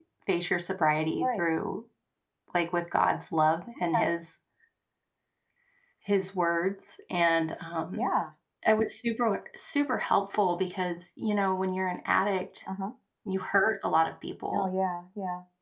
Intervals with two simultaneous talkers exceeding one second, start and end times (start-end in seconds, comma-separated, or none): none